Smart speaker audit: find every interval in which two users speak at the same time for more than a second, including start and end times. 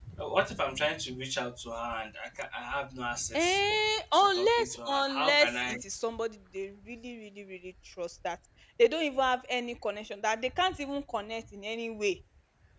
4.2-5.8

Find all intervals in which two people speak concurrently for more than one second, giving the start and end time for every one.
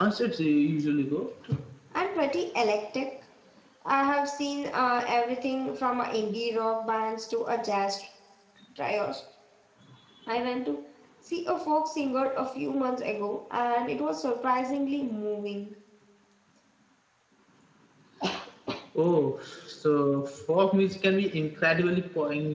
none

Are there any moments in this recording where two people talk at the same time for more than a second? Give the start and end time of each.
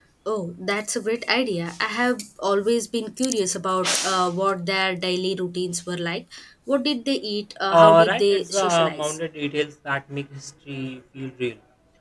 7.7-9.2

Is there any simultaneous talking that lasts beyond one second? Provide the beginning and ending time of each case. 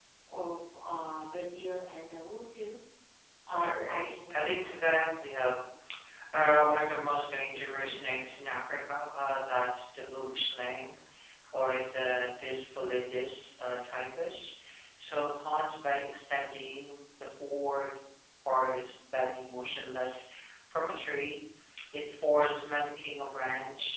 3.6-4.9

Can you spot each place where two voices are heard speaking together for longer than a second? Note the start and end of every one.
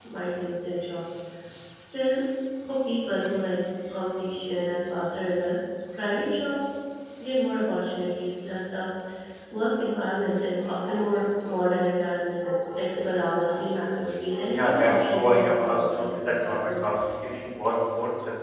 14.5-17.0

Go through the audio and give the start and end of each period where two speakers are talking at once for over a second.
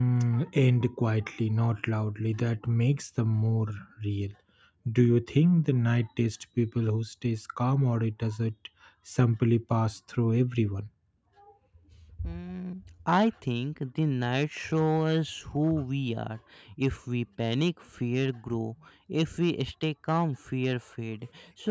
none

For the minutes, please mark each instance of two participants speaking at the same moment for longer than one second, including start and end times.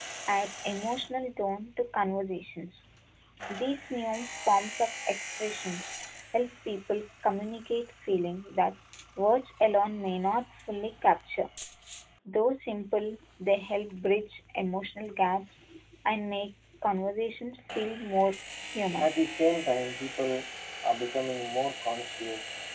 none

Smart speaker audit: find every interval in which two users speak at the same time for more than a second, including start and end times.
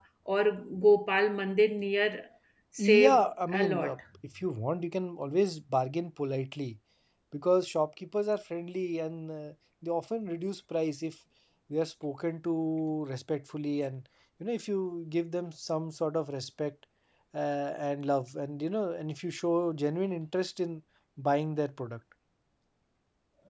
2.8-4.0

